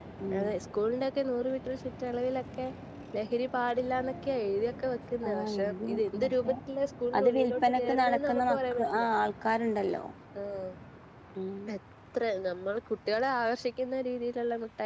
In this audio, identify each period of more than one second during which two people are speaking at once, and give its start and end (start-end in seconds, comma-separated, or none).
5.3-6.5, 7.2-9.1